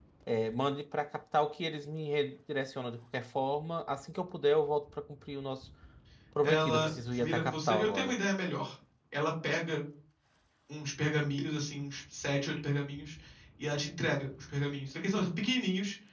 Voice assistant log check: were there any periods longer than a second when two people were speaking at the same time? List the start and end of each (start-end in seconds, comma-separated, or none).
6.4-8.2